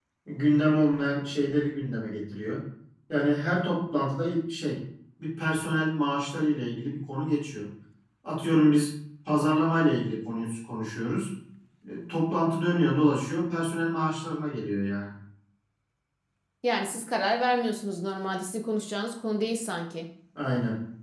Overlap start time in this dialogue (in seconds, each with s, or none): none